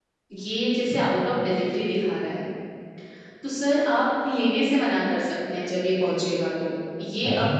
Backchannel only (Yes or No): Yes